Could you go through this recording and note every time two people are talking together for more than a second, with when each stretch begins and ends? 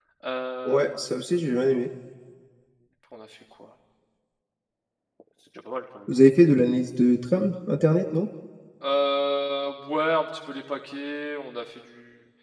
none

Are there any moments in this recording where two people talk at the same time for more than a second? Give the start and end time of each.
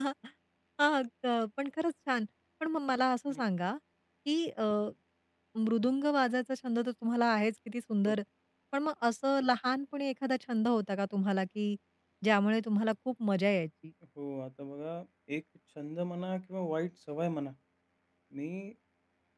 none

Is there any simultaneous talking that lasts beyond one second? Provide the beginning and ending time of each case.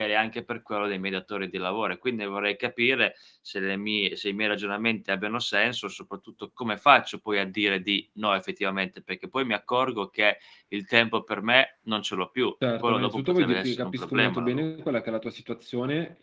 12.8-14.7

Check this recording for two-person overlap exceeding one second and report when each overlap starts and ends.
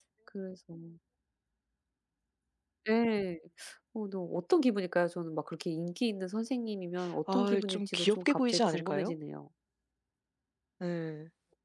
7.3-9.1

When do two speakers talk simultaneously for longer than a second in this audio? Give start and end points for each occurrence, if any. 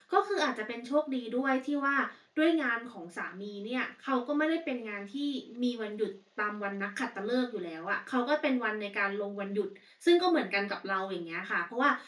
none

